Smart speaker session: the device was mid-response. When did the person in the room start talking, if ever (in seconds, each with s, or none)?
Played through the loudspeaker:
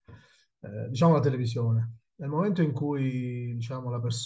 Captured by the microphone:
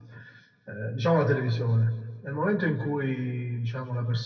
none